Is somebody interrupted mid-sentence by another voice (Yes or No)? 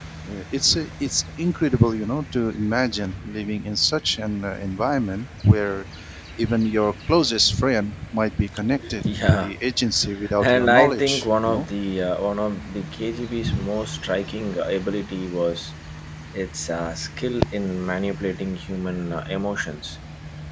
Yes